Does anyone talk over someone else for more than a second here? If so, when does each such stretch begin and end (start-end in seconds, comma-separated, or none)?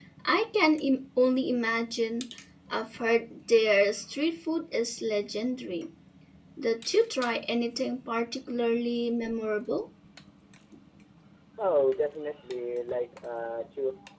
none